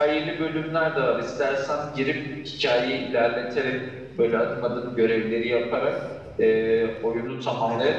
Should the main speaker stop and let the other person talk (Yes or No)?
No